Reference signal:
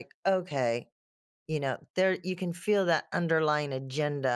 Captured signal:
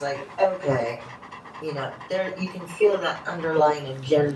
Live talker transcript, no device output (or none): none